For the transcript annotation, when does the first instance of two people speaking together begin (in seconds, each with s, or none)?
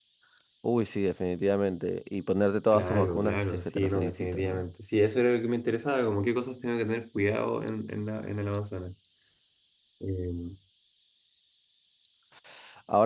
2.7 s